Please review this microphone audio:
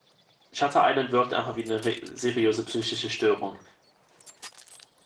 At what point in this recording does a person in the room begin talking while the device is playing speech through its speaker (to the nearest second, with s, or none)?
1 s